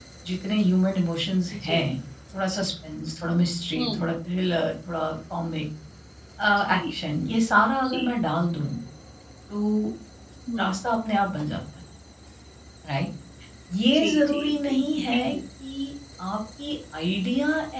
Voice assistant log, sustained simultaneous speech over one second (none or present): present